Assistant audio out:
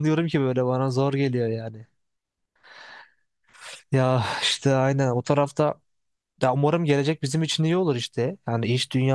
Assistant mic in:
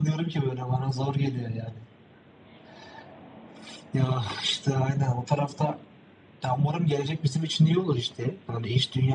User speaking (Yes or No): No